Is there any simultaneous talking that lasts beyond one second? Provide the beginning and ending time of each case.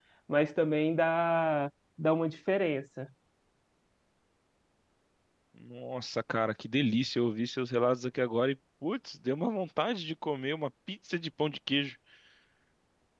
none

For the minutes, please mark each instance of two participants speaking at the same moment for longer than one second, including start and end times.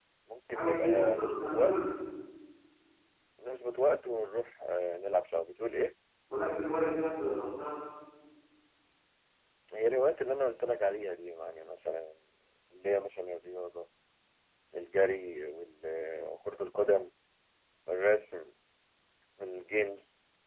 0.5-1.8

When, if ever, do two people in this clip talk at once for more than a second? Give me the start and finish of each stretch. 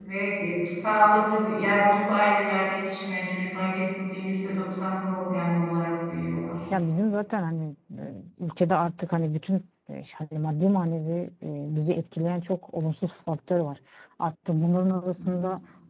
none

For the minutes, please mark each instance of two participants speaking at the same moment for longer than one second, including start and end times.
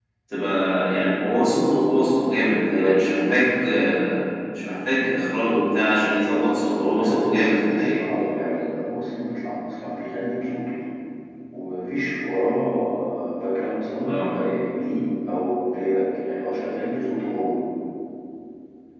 6.3-8.0

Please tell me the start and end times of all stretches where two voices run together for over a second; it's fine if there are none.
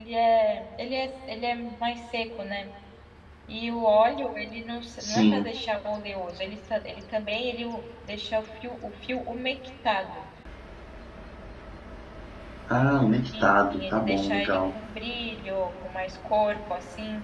13.4-14.7

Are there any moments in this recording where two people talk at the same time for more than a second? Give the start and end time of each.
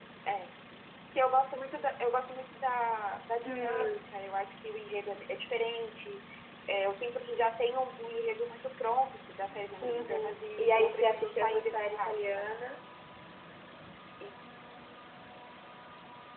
9.8-12.5

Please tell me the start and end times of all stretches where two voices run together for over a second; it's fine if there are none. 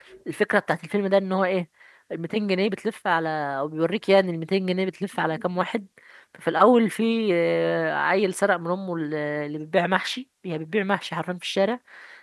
none

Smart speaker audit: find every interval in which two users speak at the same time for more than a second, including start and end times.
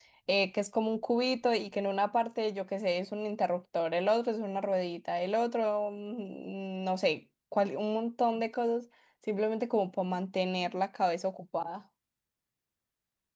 none

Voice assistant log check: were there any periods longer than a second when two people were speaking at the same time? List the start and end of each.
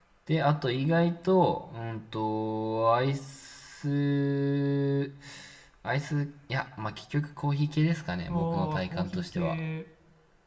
8.3-9.6

